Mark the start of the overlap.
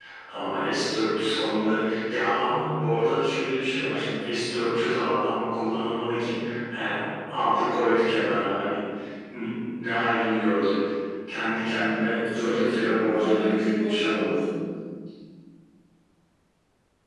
12.1 s

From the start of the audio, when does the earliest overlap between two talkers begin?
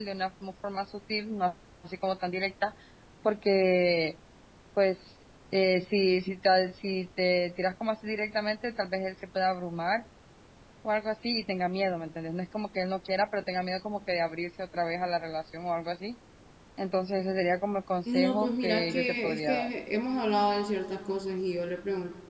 18.1 s

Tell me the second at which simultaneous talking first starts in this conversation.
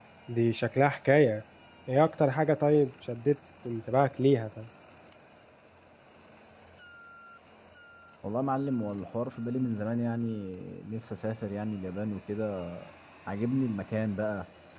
none

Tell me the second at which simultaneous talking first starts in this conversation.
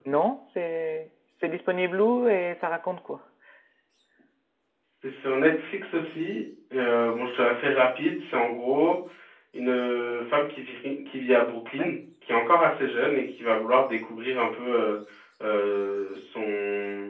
none

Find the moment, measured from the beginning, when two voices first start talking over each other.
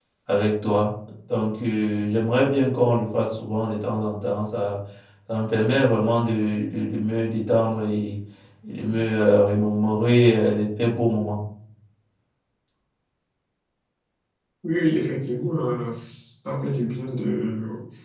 none

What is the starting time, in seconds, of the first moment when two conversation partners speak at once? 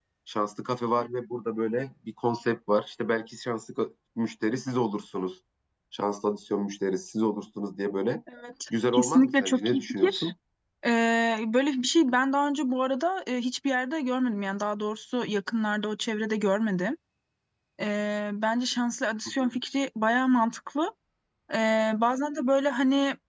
8.9 s

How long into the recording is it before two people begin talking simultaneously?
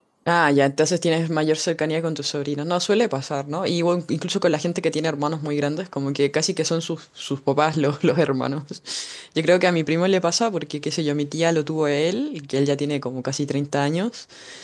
none

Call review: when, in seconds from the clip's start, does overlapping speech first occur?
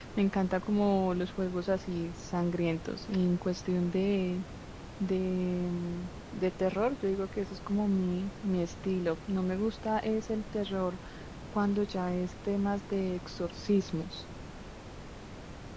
none

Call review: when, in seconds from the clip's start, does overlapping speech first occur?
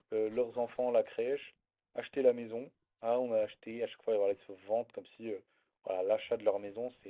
none

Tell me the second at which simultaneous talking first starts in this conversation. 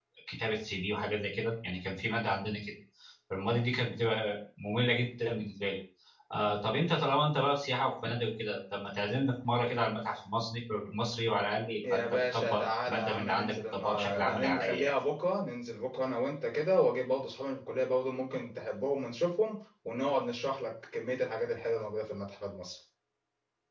11.8 s

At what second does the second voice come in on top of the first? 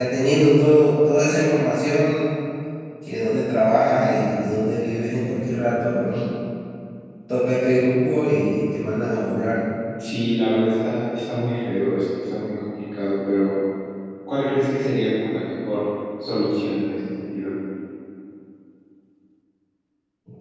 none

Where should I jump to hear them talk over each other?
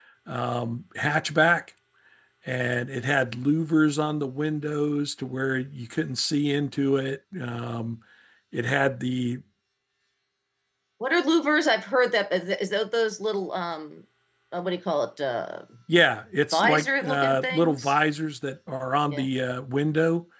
16.5 s

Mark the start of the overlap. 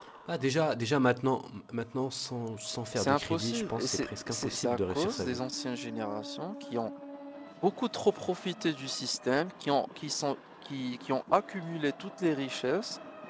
2.7 s

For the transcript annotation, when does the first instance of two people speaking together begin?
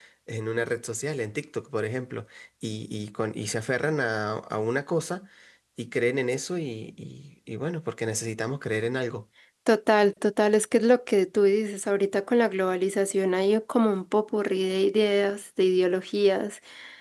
none

